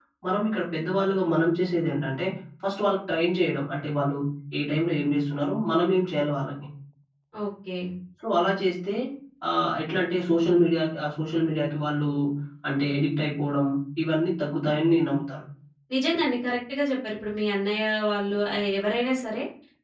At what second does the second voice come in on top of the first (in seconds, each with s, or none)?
none